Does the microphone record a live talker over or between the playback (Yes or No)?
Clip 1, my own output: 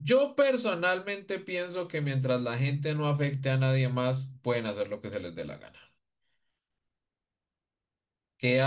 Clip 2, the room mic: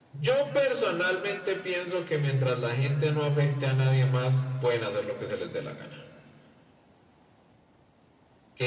No